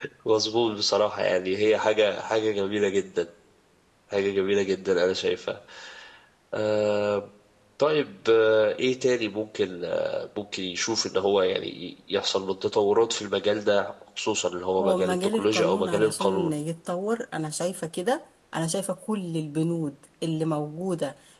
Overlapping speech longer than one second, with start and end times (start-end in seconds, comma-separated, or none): 14.8-16.6